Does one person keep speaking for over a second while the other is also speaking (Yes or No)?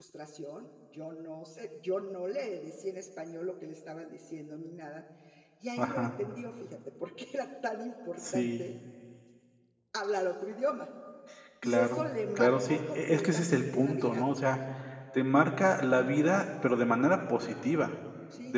Yes